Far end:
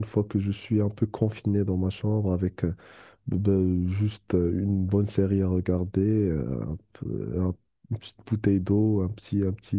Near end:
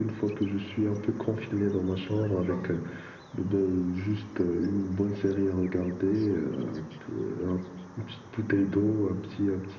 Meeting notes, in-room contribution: present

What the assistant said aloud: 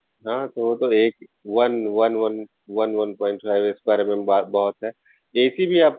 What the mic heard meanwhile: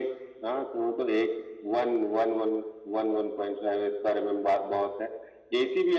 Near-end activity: none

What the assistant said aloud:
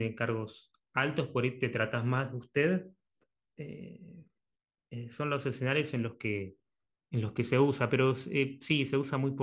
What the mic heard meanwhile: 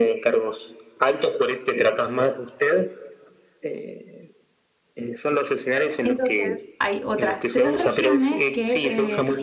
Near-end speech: present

